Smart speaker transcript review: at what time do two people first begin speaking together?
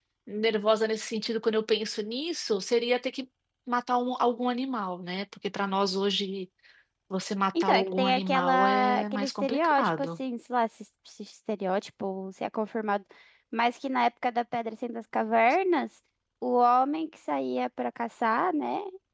7.6 s

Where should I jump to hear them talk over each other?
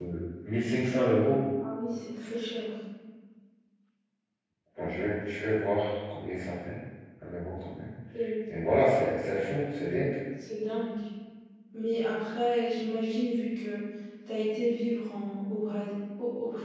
none

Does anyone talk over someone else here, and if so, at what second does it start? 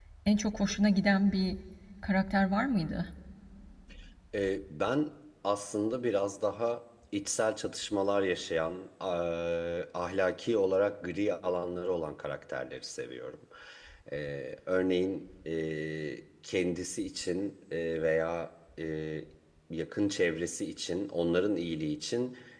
none

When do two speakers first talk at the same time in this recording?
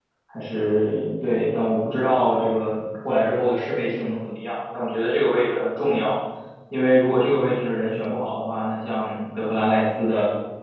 none

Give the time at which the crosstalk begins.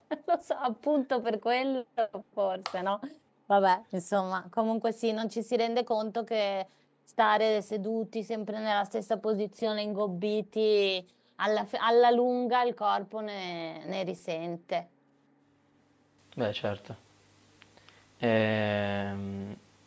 none

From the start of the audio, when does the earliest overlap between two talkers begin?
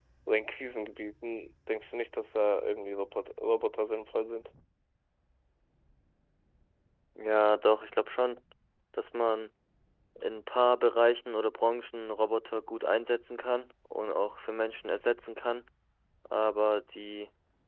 none

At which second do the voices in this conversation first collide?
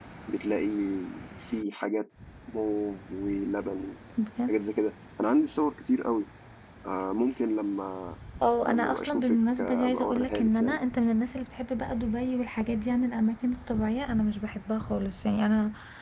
8.7 s

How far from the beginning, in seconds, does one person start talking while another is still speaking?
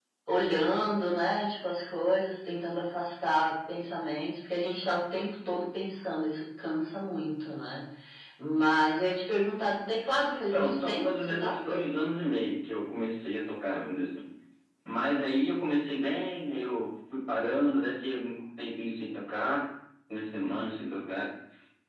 10.5 s

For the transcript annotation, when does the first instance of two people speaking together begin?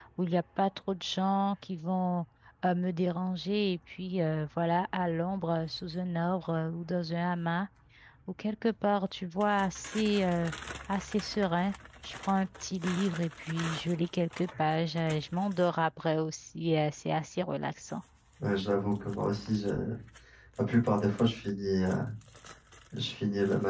none

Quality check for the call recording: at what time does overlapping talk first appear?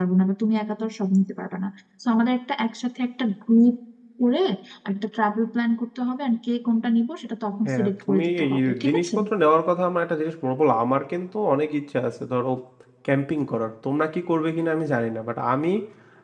7.6 s

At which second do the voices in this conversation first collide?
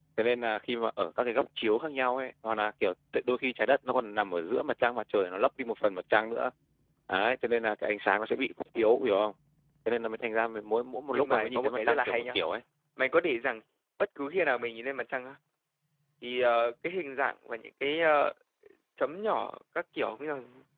11.1 s

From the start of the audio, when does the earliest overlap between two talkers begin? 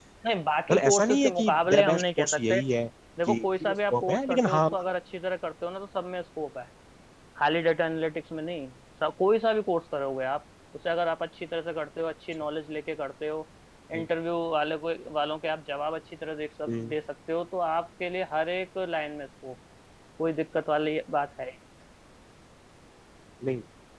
0.7 s

